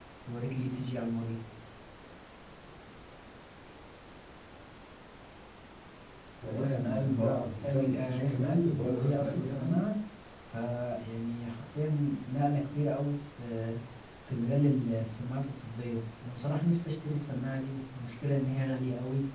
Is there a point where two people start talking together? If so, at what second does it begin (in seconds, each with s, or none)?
6.5 s